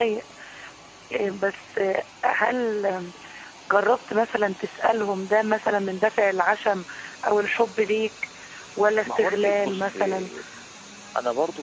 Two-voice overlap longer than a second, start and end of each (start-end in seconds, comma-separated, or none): 9.0-10.3